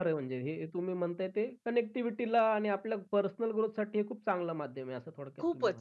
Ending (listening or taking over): taking over